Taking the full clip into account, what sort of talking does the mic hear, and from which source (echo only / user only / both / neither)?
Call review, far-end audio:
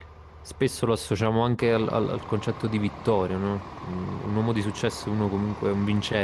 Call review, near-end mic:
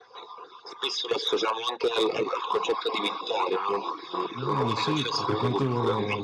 both